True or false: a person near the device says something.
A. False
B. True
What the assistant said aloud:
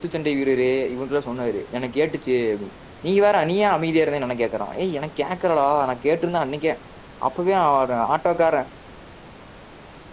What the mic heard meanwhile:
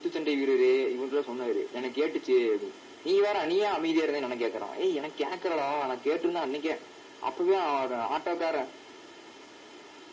A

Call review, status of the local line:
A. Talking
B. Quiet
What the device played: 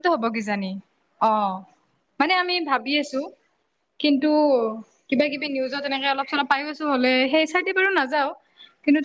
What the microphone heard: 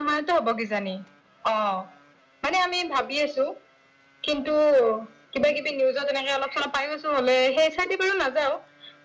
B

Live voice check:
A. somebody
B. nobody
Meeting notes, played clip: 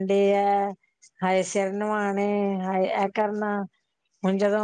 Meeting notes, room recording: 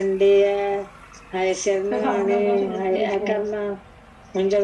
A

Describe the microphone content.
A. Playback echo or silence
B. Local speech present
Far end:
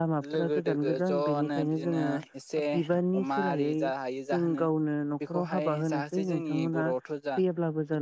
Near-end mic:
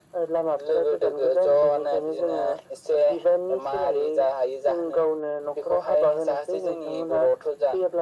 A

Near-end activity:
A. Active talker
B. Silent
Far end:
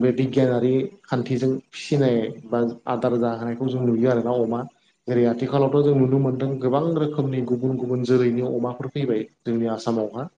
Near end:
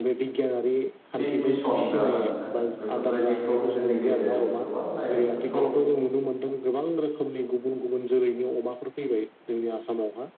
A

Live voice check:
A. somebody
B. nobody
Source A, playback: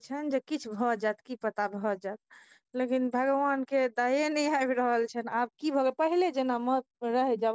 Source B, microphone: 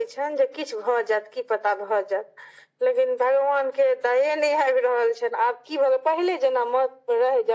B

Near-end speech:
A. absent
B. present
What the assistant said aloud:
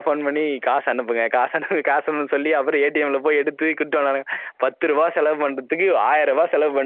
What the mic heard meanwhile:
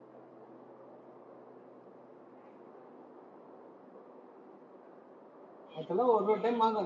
B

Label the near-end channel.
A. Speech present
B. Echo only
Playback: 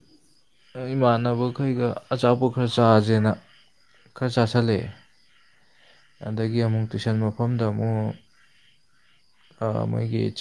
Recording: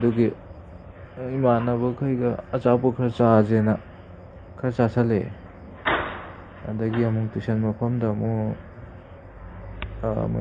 B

